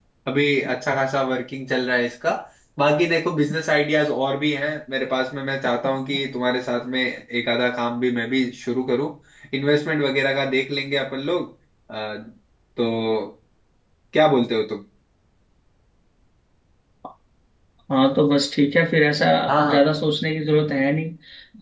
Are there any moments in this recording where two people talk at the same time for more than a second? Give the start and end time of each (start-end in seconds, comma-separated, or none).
none